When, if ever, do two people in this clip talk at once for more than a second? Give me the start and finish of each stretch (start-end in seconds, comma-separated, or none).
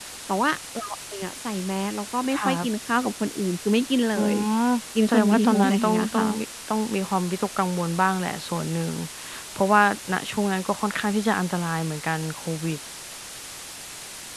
5.1-6.4